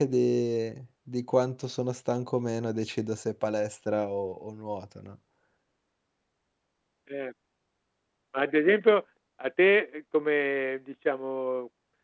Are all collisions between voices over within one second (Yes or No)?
Yes